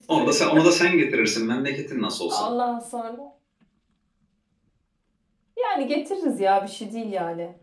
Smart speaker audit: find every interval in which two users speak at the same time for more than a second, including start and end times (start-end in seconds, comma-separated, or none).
none